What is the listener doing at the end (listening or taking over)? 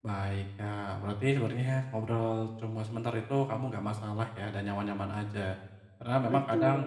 listening